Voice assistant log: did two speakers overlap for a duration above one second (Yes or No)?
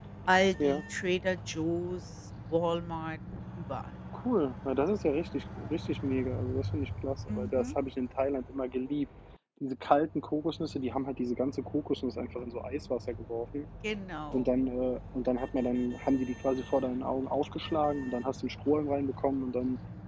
No